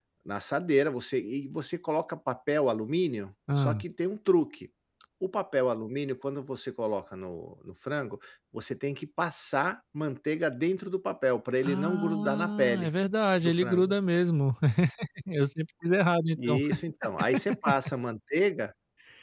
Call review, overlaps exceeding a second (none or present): present